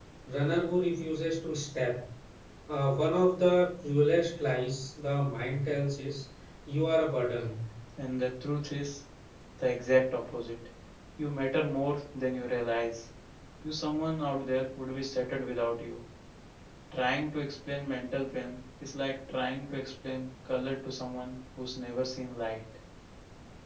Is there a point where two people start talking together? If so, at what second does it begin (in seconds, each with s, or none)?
none